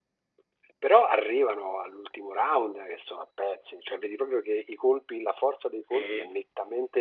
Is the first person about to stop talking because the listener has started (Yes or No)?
No